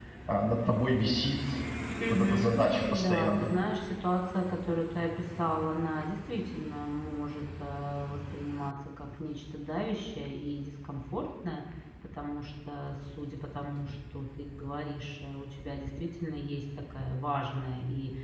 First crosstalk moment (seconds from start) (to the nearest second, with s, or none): 2 s